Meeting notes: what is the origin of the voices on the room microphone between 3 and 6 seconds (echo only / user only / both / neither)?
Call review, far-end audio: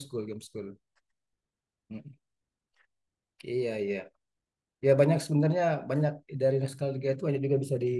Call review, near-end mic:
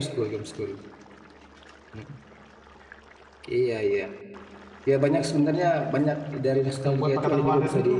echo only